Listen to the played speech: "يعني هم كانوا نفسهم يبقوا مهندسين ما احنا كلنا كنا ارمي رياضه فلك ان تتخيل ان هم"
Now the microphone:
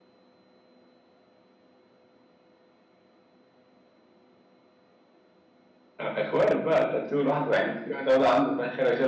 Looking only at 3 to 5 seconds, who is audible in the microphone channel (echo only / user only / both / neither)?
neither